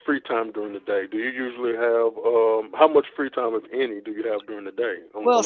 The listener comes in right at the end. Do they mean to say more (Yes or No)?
Yes